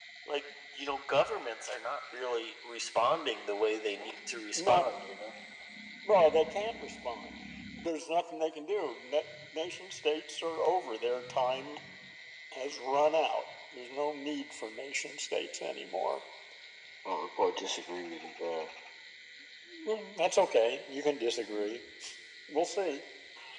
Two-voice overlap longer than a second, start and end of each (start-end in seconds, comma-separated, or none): none